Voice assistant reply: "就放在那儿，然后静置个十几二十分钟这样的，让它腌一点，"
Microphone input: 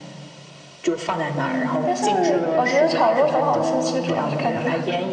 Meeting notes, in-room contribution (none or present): present